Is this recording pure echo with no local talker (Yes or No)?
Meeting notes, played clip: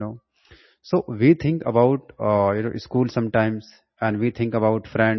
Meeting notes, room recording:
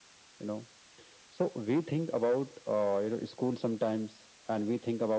Yes